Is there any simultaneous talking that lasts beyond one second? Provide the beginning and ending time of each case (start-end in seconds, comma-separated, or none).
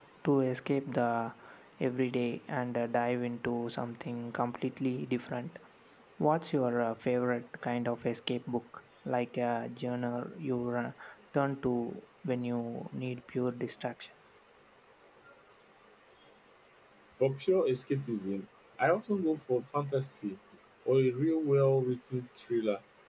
none